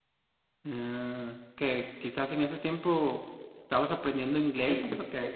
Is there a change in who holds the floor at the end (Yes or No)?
Yes